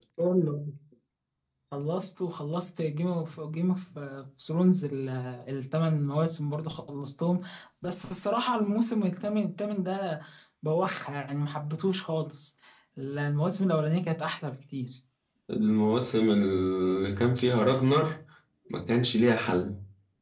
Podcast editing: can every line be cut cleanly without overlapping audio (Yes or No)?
Yes